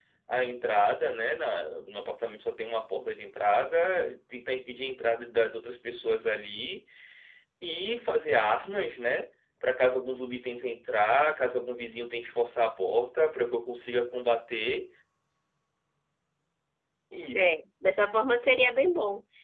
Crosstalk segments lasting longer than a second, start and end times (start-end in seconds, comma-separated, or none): none